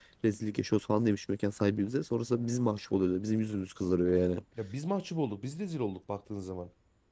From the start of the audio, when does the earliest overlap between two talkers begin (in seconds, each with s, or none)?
none